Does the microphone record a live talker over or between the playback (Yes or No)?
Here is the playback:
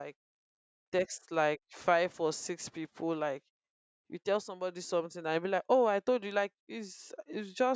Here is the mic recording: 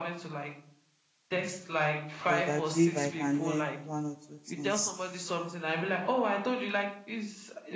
Yes